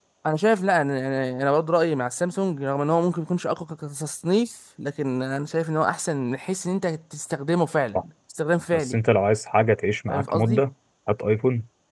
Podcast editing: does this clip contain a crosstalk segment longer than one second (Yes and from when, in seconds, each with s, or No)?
No